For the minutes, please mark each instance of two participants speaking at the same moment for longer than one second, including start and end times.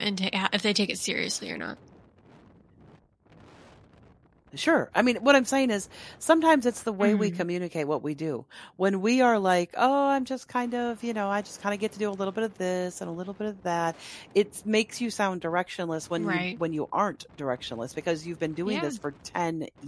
none

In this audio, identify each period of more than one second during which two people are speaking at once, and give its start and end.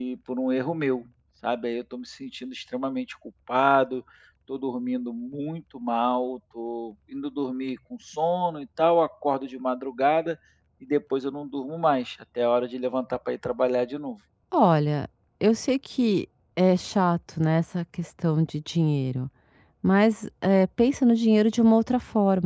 none

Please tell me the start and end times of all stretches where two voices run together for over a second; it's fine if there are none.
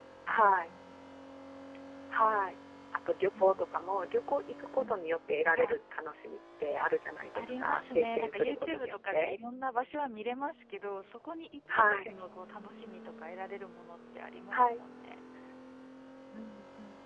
7.3-9.4

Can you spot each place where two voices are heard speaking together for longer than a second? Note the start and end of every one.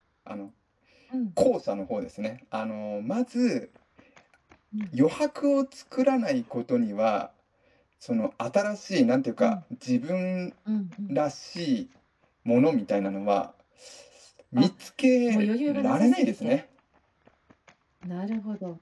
15.3-16.6

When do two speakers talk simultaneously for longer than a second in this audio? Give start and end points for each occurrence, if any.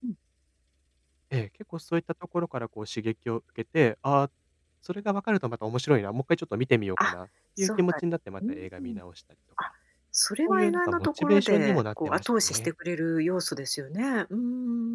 10.4-12.7

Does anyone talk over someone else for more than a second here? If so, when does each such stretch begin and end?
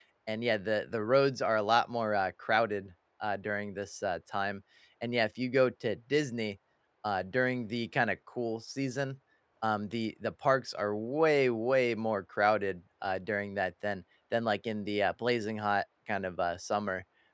none

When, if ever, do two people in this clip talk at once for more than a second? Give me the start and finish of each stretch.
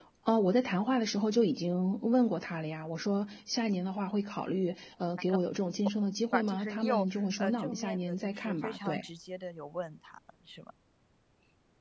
6.3-9.0

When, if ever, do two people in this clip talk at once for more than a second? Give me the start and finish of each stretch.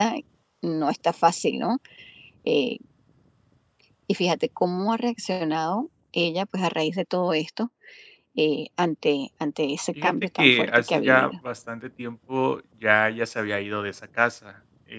10.0-11.3

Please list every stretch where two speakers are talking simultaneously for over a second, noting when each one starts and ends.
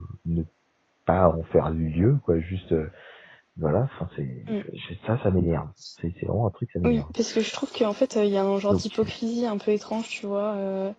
none

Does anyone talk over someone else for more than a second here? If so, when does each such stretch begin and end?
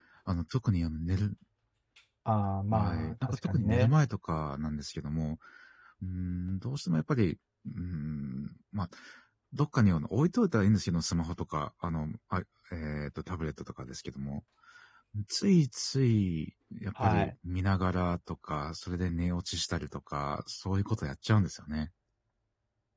2.7-3.9

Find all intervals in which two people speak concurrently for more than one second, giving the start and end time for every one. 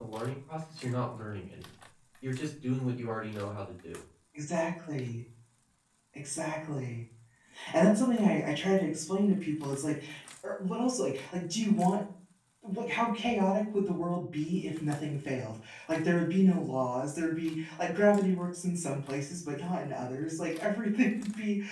none

